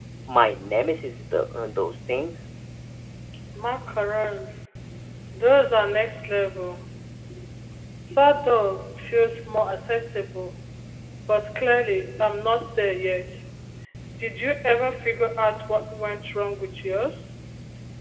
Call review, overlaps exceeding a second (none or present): none